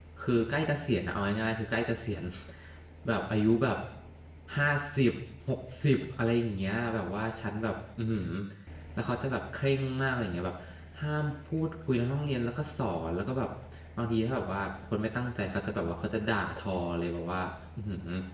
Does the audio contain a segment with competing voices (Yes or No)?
No